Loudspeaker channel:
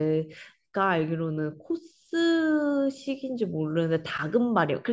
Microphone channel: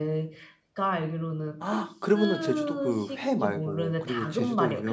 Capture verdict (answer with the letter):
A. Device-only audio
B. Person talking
B